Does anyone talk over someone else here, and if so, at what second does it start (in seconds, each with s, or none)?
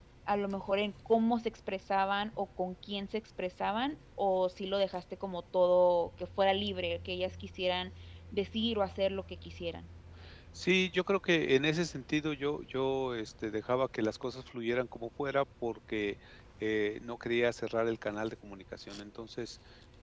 none